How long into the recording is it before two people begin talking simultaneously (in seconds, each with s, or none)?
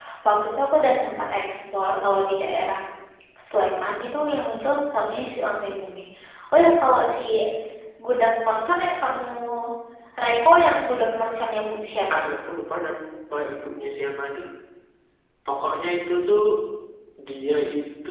none